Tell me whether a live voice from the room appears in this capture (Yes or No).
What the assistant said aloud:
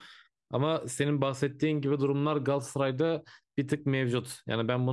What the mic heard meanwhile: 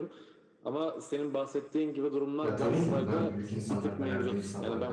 Yes